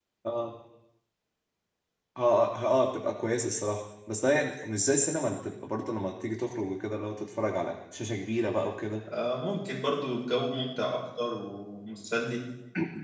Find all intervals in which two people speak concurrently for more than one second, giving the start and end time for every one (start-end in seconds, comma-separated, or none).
none